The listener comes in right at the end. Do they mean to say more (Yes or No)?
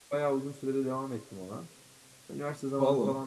No